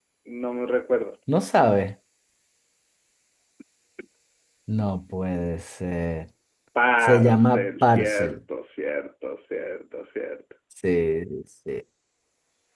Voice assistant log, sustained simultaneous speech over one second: present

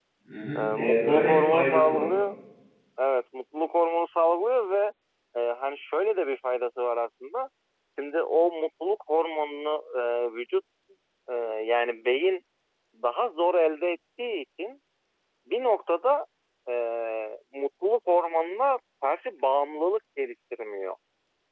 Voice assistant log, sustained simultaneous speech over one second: present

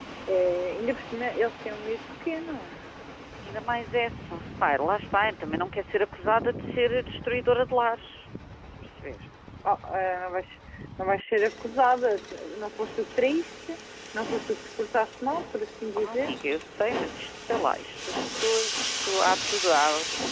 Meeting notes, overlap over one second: none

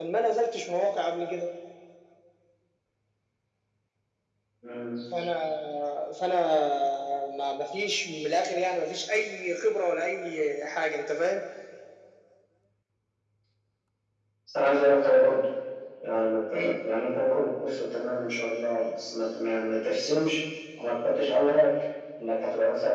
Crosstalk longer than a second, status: none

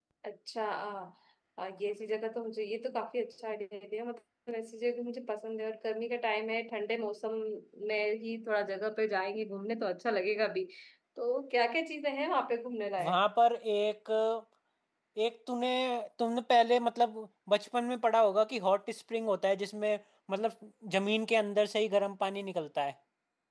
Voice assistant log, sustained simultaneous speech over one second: none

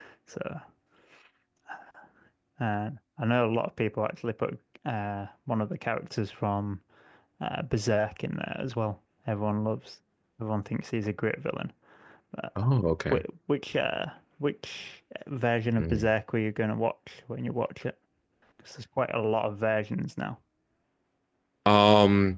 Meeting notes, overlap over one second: none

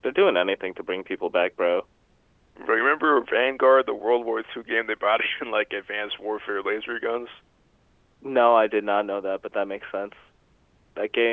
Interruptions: none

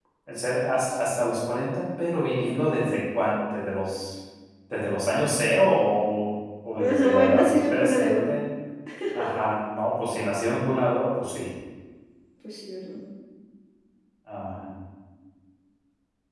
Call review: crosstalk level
present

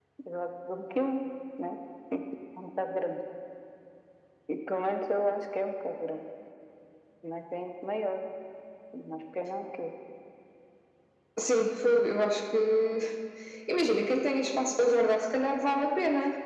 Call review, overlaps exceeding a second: none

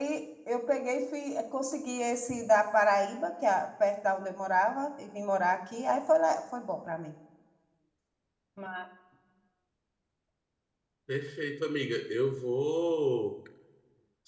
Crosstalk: none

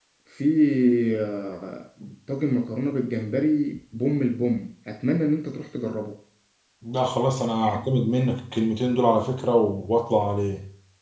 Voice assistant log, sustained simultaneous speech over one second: none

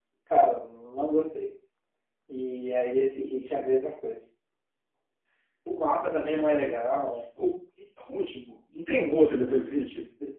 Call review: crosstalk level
none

